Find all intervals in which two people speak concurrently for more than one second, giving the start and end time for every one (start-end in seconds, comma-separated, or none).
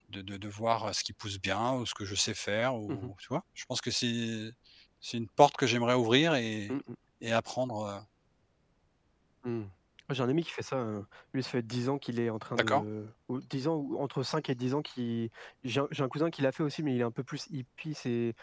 none